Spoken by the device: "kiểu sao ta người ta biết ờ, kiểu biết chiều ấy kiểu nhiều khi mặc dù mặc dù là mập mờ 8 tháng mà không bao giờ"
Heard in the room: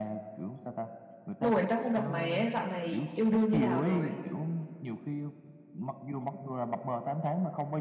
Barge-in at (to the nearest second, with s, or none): 1 s